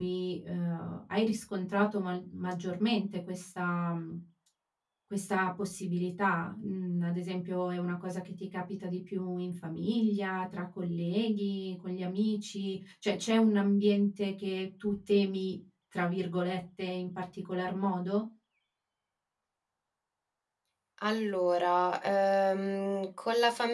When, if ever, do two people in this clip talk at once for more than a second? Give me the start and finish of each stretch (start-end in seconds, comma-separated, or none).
none